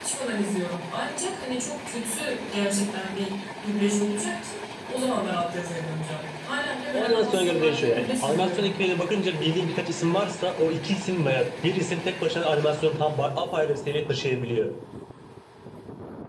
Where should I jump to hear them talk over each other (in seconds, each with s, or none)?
6.9 s